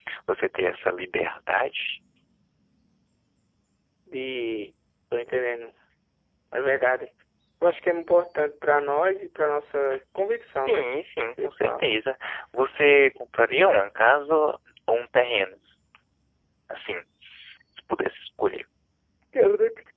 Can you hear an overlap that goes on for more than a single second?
No

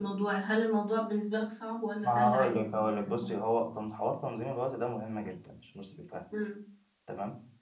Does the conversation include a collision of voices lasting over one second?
Yes, from 2.0 s

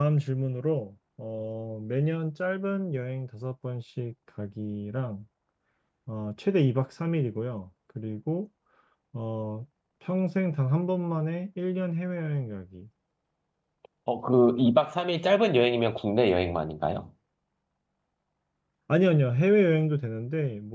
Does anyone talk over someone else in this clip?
No

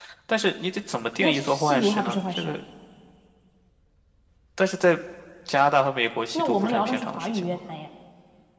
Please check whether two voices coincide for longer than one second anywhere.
Yes, from 1.2 s

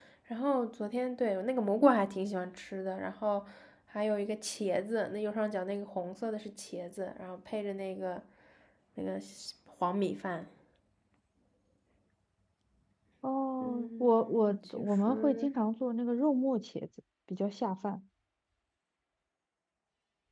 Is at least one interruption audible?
Yes, from 13.6 s

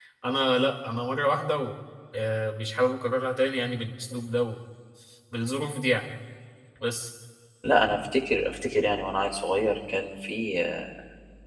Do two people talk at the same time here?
No

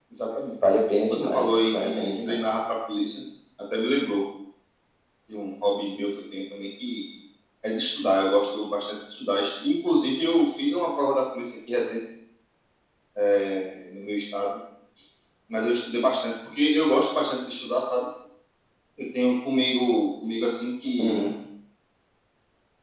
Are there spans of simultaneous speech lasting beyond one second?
Yes, from 1.1 s

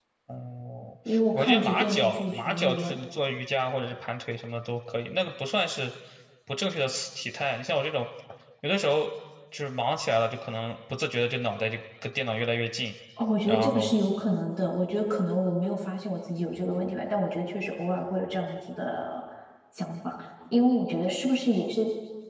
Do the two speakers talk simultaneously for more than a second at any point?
Yes, from 1.3 s

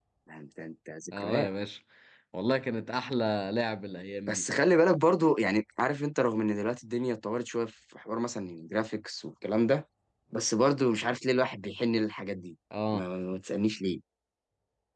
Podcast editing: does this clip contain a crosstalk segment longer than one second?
No

